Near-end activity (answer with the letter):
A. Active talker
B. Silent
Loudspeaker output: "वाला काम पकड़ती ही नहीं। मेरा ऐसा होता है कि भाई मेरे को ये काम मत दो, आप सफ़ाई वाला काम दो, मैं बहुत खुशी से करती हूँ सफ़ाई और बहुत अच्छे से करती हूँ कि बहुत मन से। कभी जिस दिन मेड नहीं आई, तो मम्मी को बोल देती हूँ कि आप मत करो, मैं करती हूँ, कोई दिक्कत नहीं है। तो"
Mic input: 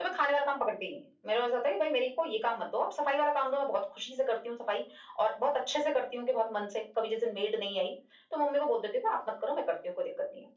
B